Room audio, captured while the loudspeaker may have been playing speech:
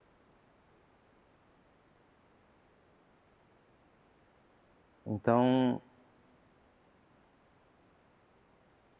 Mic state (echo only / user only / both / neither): user only